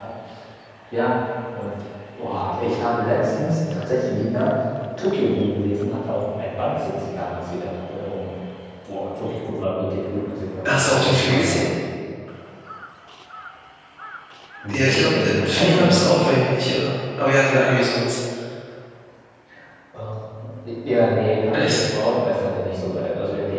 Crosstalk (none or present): present